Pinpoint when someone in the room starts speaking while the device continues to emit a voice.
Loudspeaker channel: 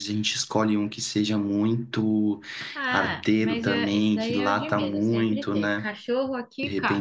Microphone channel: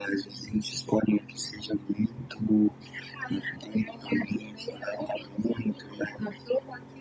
none

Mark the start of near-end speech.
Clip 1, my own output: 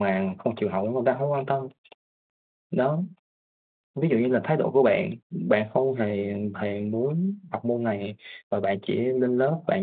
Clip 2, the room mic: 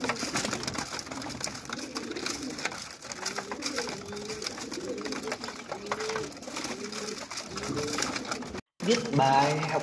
8.8 s

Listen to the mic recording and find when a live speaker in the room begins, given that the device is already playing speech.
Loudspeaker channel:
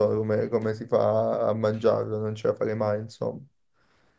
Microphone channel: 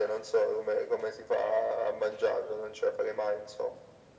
none

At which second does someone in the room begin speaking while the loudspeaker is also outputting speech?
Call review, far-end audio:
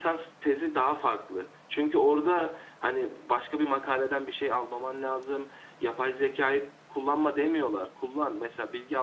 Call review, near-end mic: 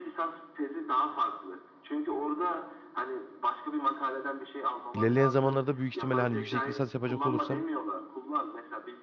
4.9 s

